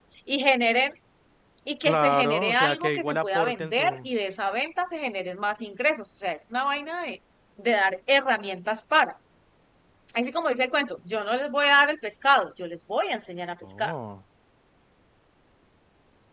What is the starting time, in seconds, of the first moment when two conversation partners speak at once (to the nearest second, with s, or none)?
2 s